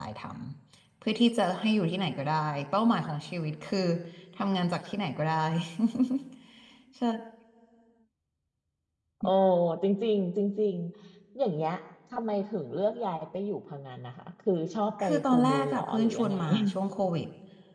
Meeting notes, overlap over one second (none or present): present